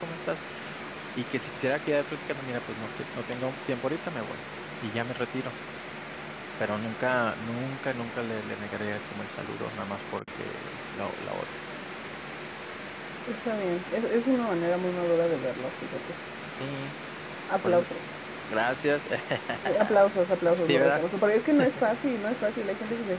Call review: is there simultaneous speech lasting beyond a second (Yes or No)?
No